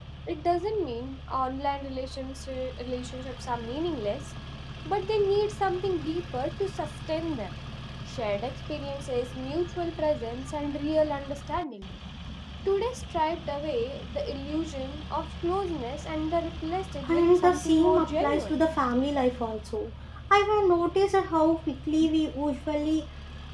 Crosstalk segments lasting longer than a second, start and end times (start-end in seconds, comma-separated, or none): 17.1-18.6